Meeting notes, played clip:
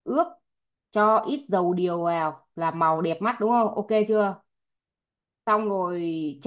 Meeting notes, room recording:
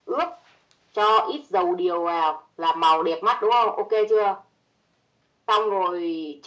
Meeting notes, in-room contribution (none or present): none